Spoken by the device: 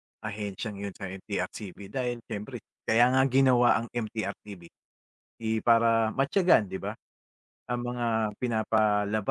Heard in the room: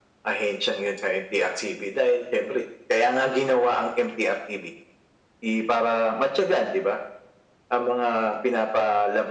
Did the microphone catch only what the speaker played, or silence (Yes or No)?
Yes